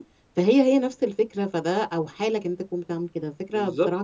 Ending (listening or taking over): taking over